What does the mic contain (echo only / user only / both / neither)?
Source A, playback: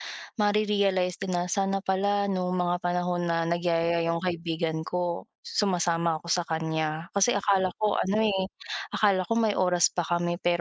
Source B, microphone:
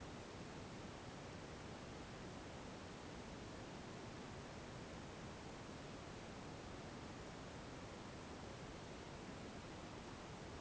neither